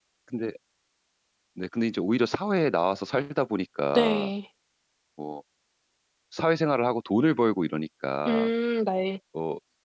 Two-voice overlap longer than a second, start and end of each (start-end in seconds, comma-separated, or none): none